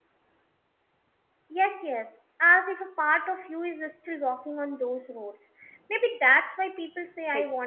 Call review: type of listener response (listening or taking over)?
listening